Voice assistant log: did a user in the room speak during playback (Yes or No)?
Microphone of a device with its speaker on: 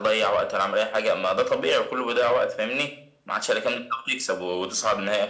No